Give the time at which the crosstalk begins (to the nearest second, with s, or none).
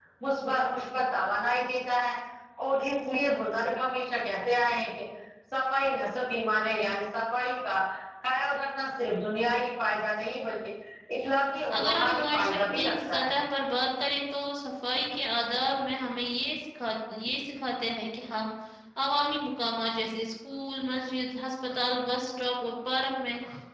12 s